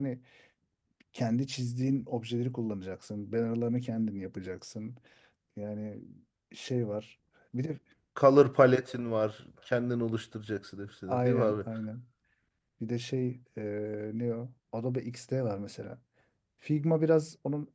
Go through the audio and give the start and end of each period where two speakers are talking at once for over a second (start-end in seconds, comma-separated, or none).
none